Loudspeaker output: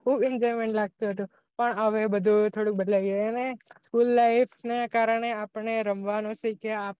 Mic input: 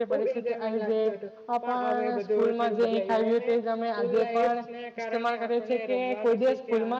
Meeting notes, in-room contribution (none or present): present